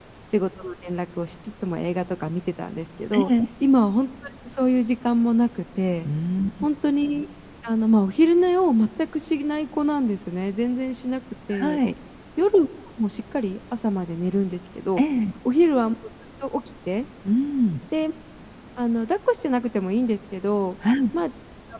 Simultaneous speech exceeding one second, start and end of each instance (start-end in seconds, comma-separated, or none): none